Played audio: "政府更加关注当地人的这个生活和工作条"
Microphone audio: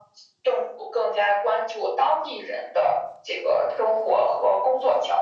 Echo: present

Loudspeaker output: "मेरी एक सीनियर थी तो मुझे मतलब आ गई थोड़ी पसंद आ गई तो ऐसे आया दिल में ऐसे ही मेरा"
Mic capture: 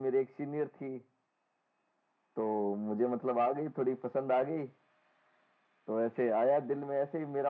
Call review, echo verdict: present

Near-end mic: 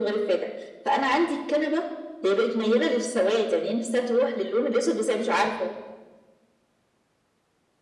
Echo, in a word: present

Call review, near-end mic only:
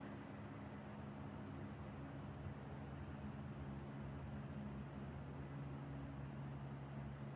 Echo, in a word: none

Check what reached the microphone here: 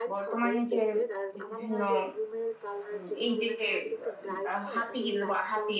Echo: present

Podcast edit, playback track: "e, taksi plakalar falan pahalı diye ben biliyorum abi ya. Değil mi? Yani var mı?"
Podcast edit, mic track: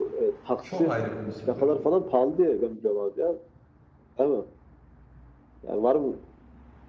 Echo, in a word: present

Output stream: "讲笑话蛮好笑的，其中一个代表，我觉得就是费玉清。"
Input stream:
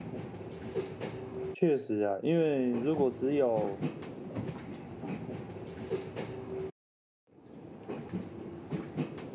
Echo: none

